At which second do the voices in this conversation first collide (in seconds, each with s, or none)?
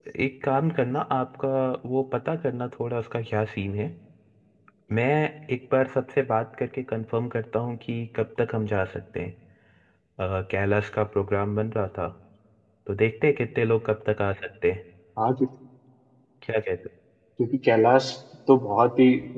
none